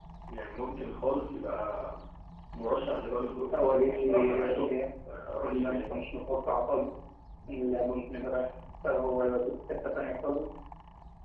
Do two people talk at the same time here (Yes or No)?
Yes